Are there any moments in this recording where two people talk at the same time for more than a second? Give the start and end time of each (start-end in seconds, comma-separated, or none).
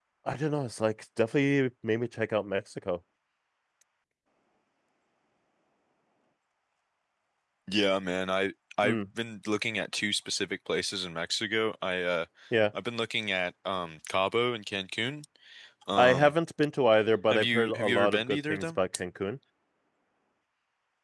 17.3-18.8